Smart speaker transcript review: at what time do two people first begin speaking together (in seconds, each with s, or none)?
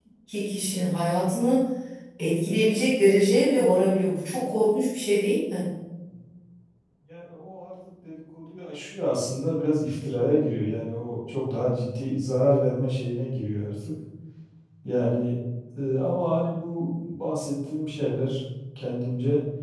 none